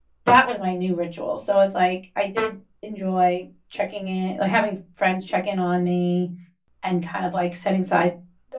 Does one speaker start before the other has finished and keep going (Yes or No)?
No